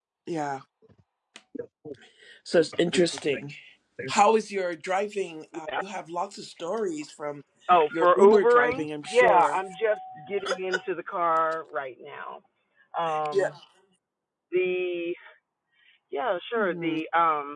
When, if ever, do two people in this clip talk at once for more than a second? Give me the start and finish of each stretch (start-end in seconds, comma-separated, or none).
7.9-9.6